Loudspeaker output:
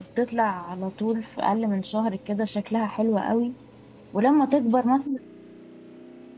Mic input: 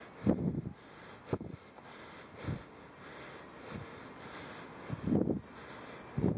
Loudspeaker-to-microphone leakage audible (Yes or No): No